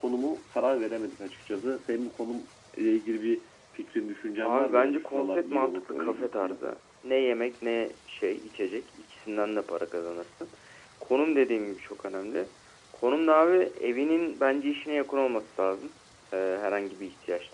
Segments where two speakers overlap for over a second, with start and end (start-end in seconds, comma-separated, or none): 4.4-6.6